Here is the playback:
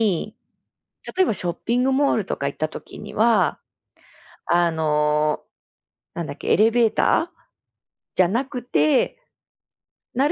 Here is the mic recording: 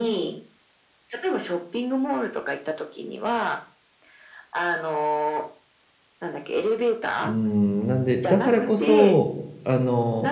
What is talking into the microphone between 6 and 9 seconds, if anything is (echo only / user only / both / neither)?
both